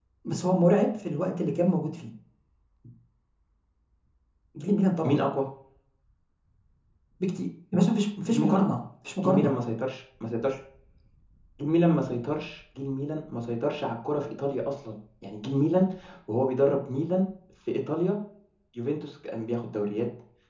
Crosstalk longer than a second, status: none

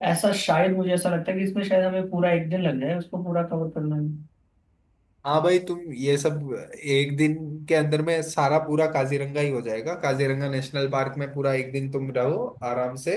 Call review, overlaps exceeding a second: none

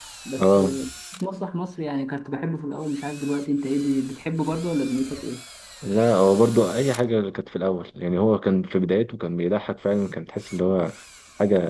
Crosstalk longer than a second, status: none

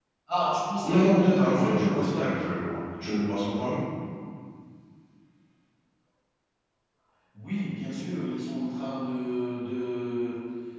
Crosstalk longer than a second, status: present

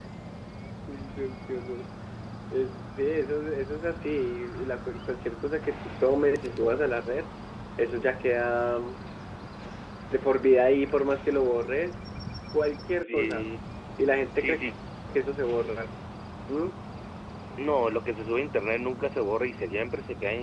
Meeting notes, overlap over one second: none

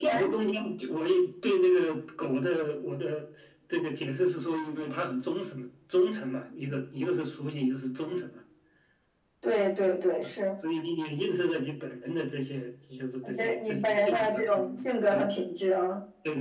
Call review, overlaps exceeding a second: present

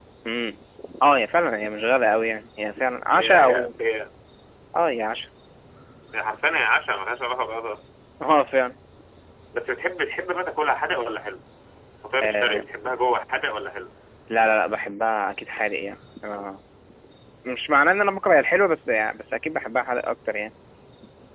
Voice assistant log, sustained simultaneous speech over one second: none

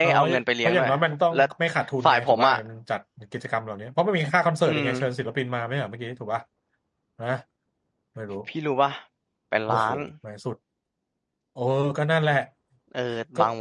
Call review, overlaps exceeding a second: none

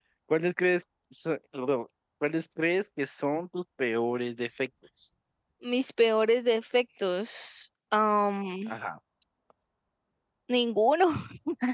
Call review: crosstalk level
none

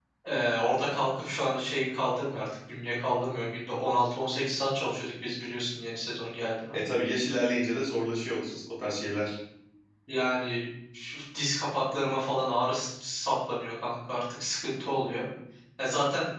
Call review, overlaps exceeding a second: none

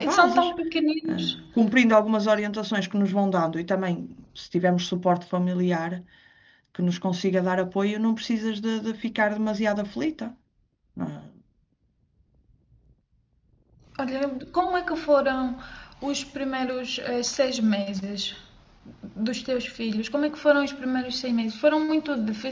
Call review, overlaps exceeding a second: none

